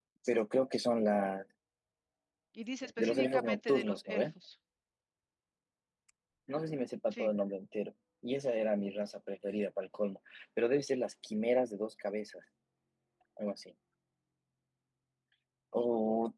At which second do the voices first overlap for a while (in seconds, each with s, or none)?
3.0 s